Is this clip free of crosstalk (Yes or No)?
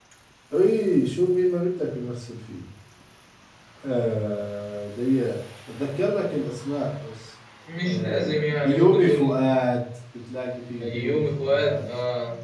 No